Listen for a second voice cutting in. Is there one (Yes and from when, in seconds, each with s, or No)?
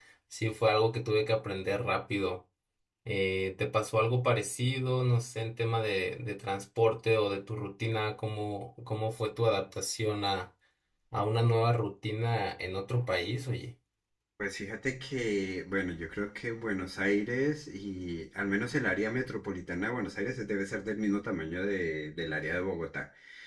No